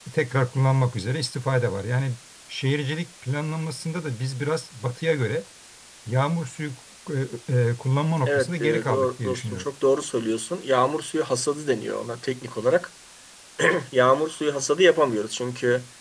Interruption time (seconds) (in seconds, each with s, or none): 8.3 s